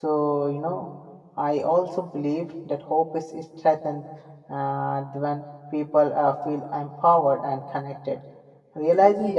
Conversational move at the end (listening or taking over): listening